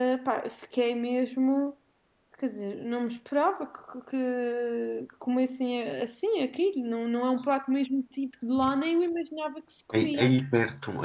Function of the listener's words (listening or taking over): taking over